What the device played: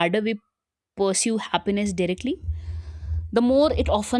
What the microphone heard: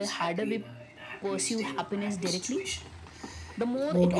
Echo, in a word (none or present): present